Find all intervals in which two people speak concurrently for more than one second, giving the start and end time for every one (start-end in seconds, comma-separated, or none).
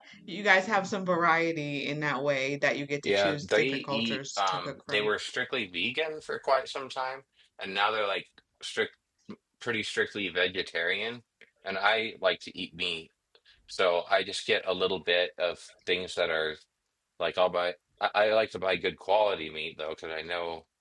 3.0-5.1